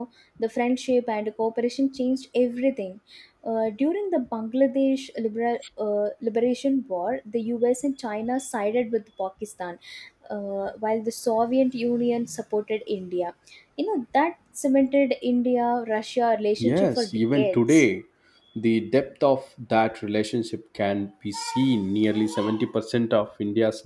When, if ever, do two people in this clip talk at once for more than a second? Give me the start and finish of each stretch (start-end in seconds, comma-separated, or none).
16.6-17.8